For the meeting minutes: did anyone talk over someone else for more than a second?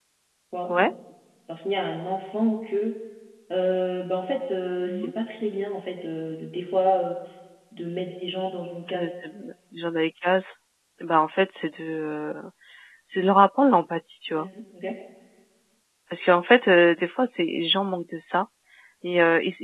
No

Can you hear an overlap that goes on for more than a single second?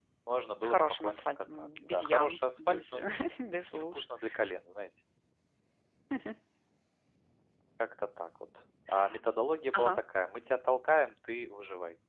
Yes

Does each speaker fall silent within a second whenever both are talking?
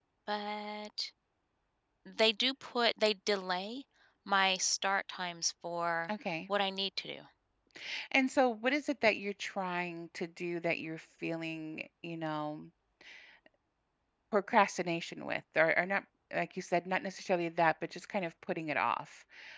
Yes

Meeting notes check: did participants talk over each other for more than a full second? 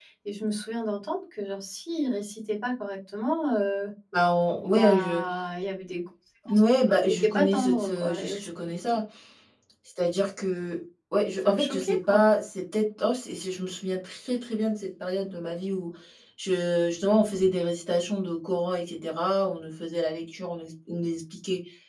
Yes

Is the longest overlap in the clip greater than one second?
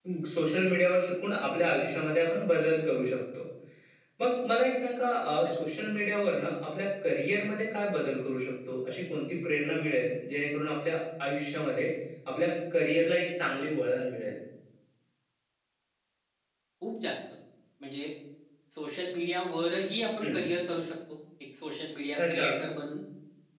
No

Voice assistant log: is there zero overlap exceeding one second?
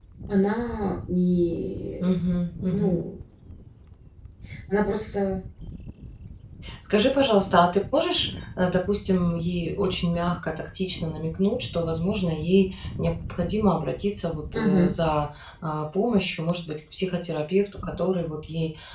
Yes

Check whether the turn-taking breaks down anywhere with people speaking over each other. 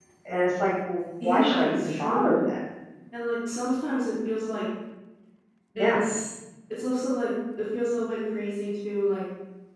Yes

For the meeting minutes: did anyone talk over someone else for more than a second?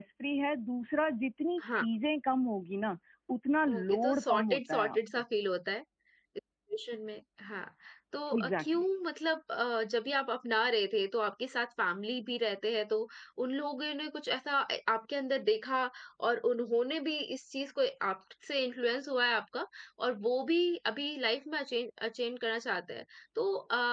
Yes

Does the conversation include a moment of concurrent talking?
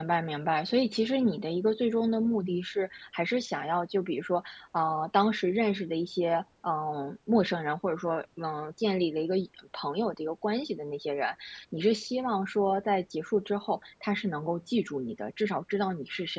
No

